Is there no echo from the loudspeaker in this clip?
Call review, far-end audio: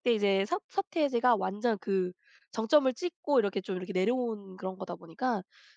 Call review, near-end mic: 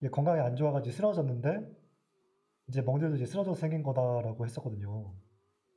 Yes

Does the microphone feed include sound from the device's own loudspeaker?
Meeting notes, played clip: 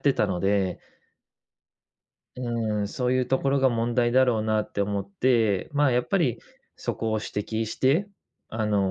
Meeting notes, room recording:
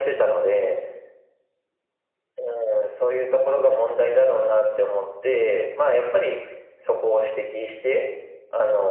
Yes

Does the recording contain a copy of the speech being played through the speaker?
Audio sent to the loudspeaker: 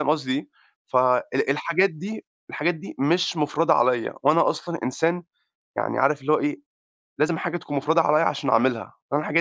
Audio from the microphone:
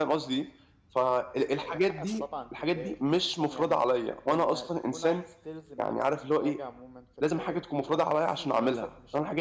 Yes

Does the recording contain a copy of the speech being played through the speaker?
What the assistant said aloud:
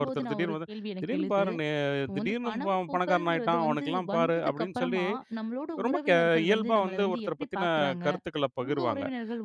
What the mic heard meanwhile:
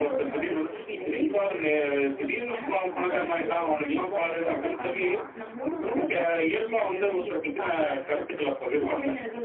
Yes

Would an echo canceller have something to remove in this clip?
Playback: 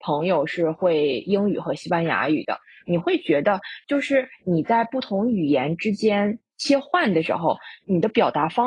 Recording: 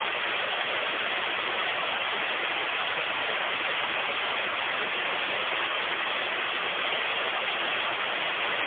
No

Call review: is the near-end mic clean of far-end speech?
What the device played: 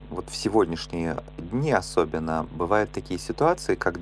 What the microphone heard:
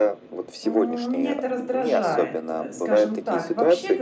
No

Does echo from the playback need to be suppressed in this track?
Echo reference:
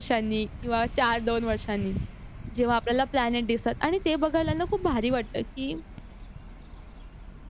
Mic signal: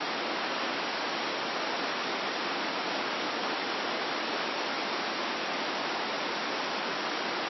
No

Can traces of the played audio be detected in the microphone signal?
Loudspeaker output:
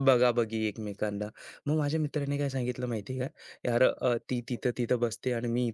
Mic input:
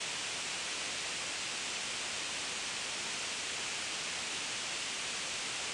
No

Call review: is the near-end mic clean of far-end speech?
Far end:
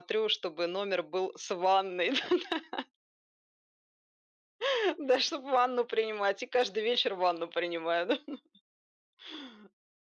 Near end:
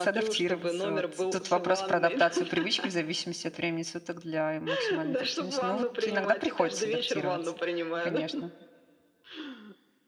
No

